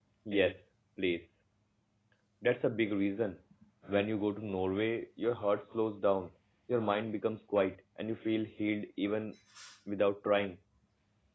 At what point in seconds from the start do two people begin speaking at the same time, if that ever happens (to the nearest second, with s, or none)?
none